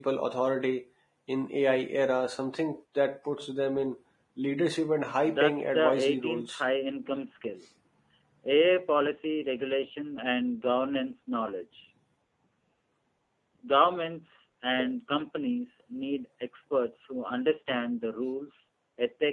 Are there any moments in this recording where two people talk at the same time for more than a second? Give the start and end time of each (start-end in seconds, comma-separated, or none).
5.2-6.6